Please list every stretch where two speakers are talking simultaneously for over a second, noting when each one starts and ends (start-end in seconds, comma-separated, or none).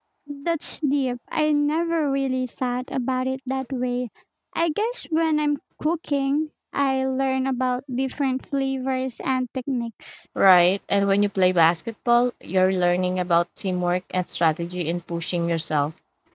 none